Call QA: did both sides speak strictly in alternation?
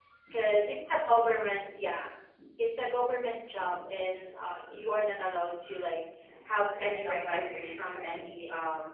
No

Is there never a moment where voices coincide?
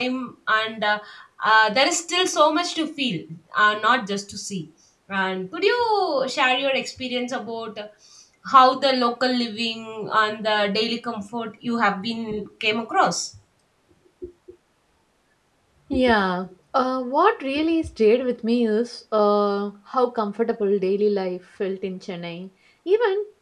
Yes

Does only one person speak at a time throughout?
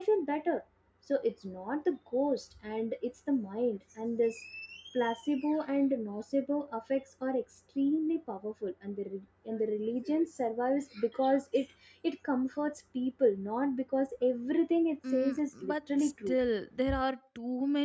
No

